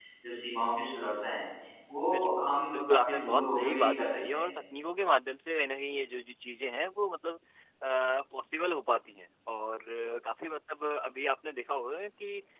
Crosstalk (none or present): present